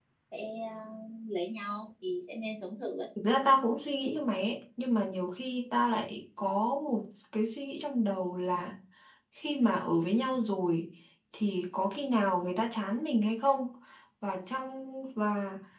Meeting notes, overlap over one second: none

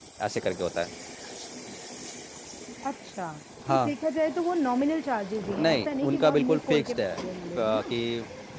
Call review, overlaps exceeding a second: present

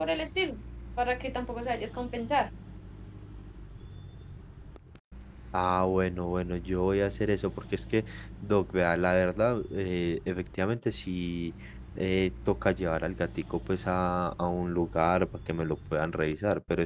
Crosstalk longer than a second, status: none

